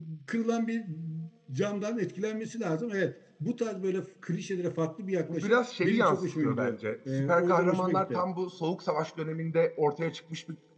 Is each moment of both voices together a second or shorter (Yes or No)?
No